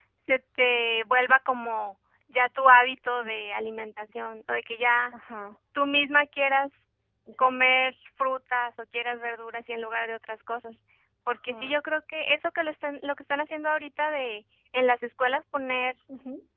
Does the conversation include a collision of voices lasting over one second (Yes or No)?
No